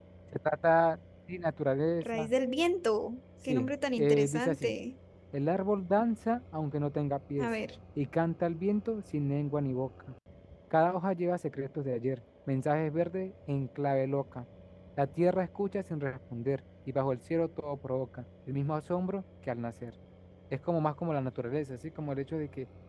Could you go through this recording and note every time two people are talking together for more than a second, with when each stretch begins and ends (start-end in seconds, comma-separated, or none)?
3.5-4.7